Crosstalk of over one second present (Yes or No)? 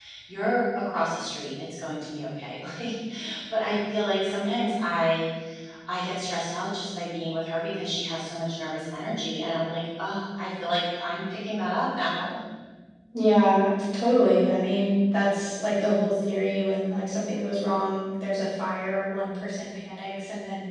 No